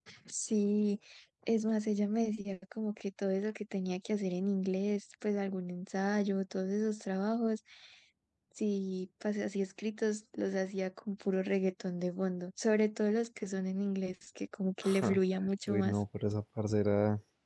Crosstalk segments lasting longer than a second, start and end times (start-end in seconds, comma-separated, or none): none